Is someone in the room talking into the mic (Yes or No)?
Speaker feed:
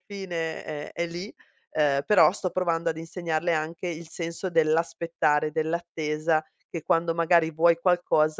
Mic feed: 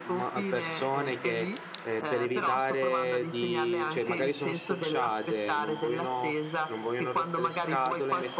Yes